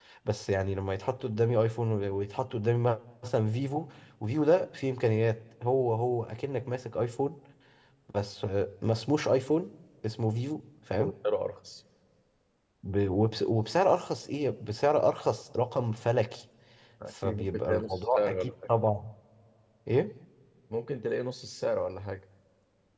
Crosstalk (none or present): present